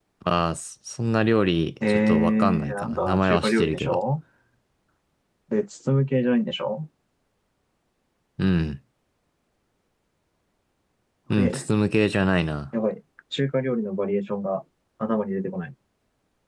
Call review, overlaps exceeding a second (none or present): present